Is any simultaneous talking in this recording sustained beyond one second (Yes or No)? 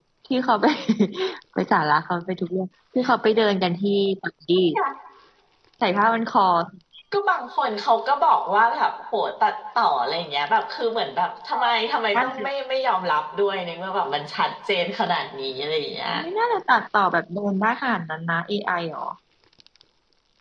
No